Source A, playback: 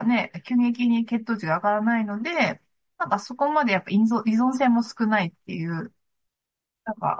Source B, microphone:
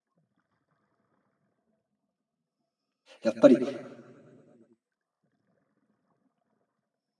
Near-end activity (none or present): present